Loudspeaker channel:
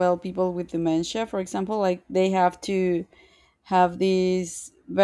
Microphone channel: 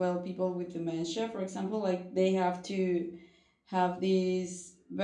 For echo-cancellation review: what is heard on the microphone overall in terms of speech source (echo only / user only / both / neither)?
echo only